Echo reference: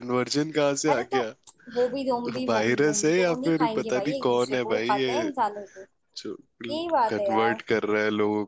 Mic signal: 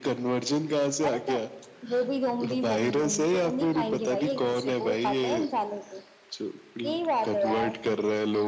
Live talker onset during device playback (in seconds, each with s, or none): none